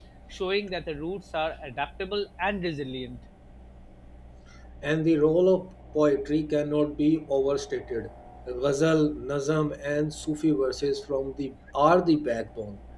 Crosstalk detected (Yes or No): No